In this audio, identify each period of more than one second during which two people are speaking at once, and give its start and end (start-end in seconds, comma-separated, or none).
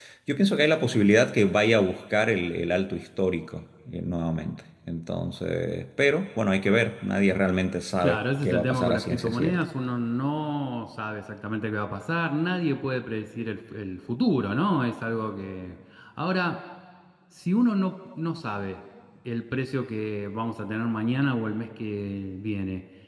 8.0-9.6